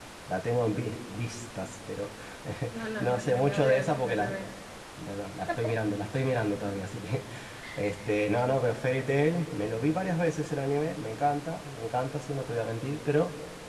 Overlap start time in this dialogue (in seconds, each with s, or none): 3.0 s